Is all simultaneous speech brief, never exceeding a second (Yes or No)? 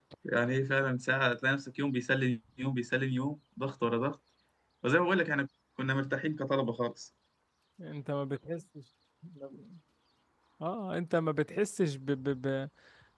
Yes